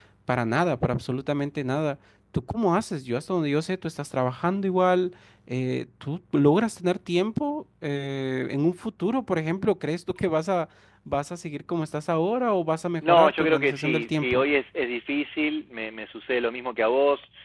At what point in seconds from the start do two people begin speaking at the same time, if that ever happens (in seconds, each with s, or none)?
13.0 s